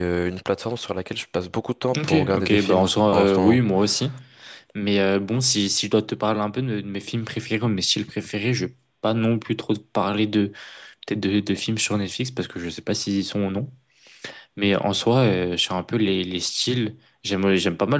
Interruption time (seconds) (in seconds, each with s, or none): 1.9 s